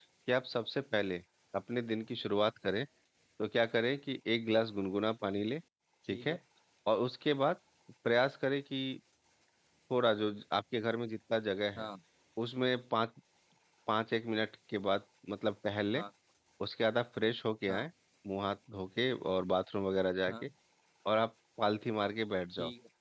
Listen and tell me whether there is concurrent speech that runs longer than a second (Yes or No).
No